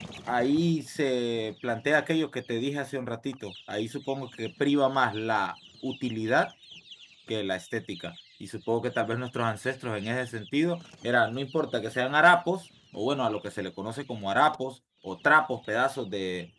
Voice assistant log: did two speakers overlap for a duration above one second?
No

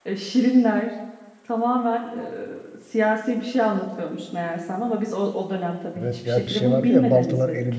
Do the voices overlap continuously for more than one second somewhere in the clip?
Yes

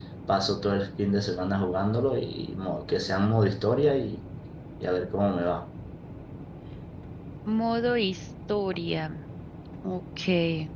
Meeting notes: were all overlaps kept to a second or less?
Yes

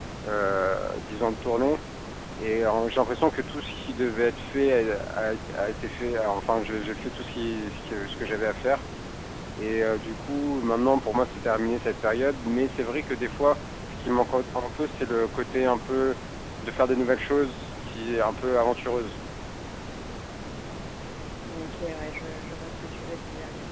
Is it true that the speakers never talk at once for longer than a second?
Yes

